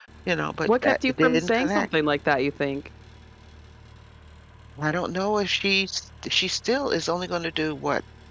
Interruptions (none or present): present